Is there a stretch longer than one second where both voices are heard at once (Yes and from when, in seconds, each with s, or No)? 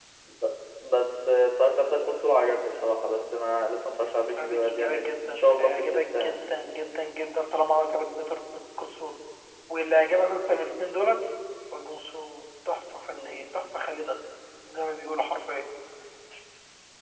Yes, from 4.4 s